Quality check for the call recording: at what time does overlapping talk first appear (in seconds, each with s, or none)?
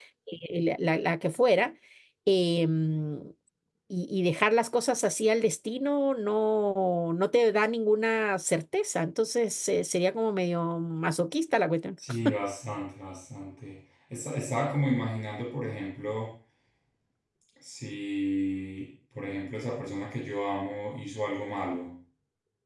none